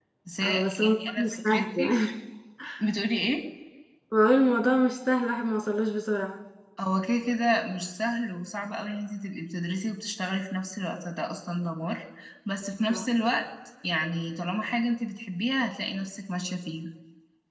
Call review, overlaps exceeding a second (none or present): present